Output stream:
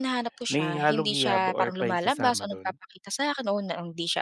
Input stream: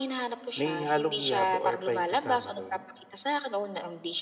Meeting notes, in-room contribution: none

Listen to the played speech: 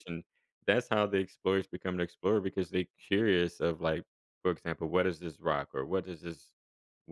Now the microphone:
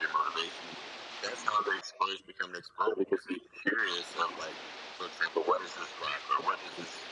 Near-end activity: none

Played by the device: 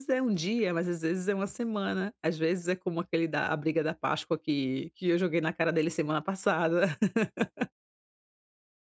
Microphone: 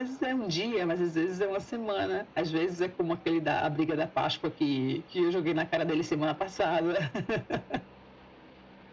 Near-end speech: none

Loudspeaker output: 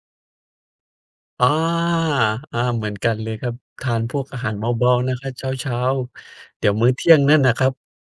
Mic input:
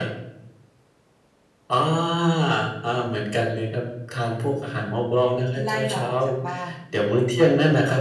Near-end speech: present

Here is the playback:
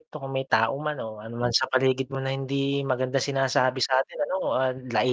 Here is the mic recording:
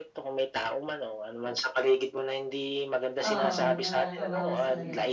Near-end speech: present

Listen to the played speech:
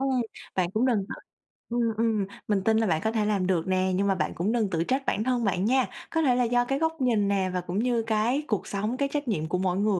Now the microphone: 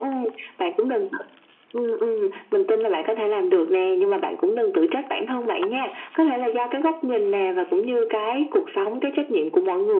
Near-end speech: none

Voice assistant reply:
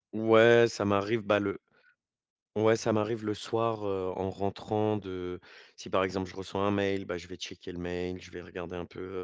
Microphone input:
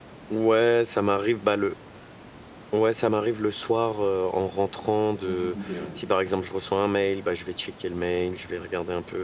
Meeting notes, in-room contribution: present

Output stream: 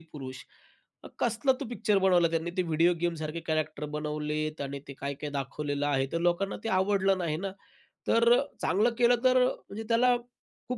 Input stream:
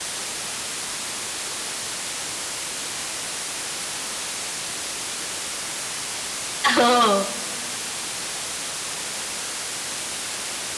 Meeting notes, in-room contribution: present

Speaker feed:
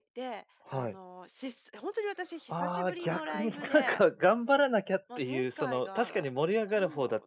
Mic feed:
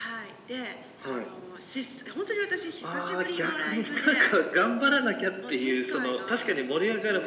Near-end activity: none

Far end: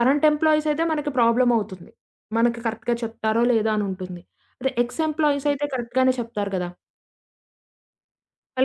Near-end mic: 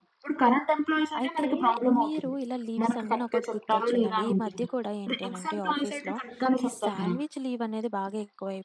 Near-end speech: present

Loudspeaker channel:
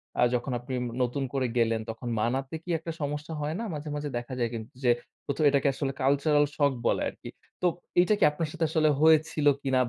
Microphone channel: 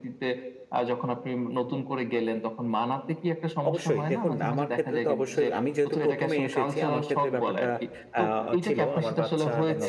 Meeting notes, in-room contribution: present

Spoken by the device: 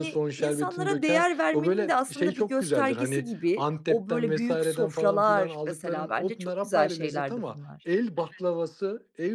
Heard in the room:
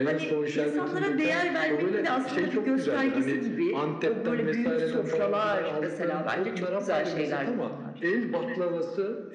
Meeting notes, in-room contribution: none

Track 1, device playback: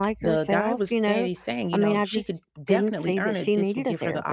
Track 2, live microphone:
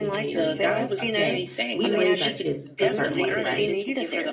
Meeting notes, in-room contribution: present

